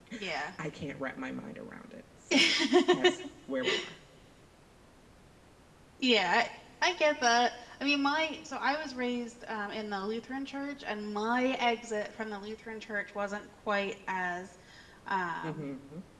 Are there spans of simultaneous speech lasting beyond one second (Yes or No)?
No